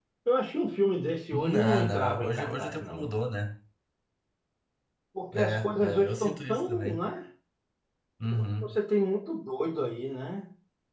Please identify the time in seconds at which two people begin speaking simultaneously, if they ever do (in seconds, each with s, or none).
1.3 s